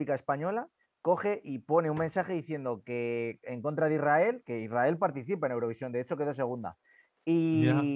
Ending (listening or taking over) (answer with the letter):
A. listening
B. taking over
A